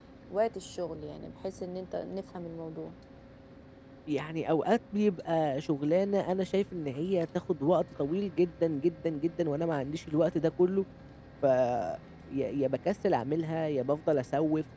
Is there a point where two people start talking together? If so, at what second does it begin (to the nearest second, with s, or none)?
none